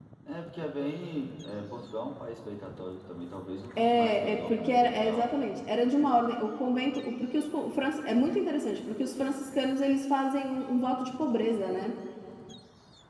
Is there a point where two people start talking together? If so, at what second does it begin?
4 s

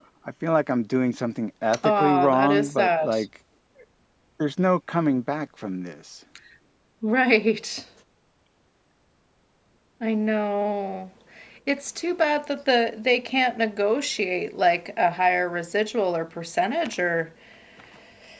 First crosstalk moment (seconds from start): 2 s

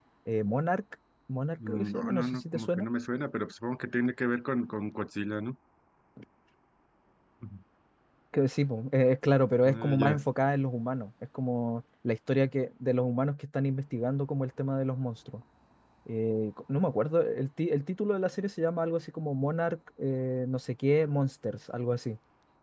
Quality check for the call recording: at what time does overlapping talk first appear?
2 s

